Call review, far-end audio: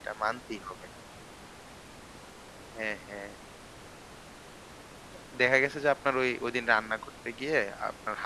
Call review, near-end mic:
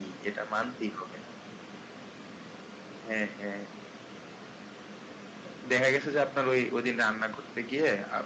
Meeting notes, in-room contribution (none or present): none